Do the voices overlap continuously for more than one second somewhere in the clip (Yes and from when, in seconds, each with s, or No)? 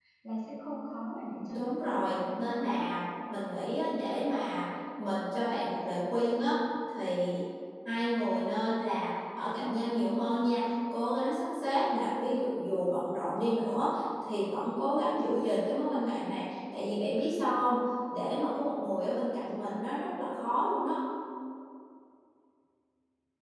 Yes, from 1.5 s